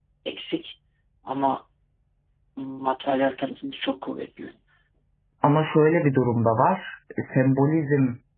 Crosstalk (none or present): none